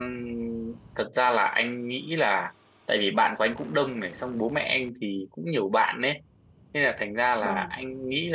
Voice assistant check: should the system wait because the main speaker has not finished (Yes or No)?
Yes